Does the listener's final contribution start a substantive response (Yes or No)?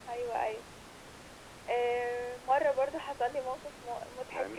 Yes